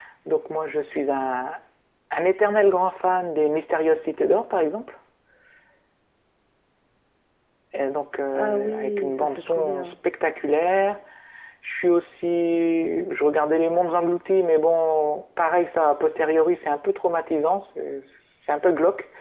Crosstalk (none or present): present